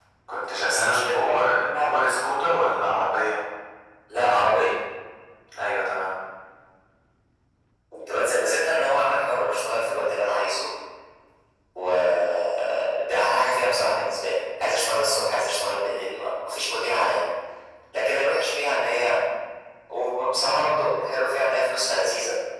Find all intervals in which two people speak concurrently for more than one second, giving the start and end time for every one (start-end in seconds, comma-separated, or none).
0.7-2.0